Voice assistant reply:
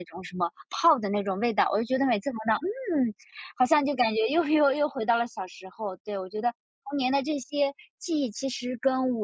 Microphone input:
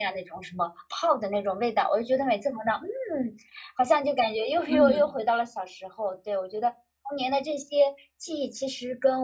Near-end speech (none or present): present